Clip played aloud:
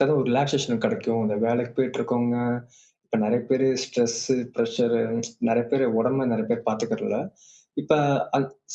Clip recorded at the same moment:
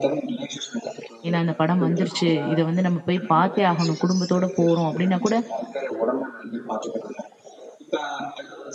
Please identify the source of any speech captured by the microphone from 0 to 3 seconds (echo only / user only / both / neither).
both